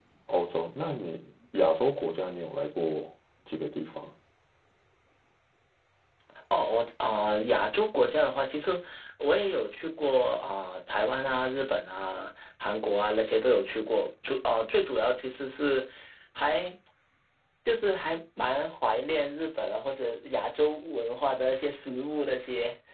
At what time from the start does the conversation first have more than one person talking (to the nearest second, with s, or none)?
none